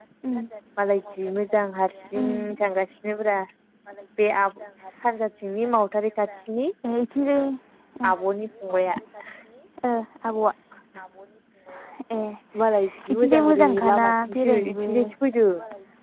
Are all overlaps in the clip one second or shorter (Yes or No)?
No